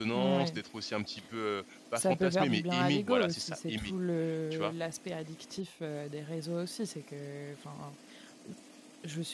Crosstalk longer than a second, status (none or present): present